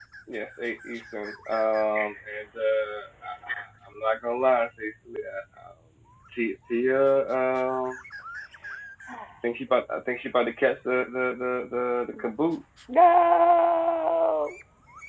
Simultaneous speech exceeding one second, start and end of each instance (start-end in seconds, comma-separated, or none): none